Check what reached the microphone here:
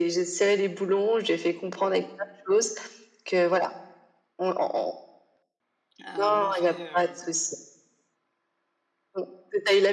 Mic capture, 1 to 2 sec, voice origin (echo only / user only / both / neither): echo only